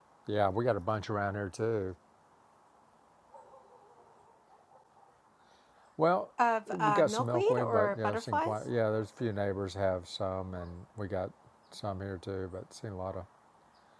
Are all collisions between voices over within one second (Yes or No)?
No